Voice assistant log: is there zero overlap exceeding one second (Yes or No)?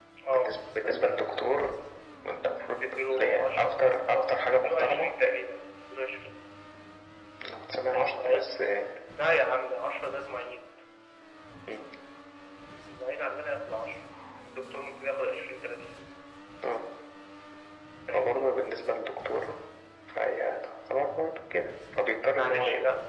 No